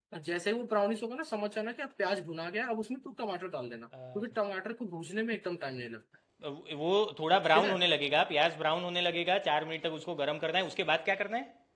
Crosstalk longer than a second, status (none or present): none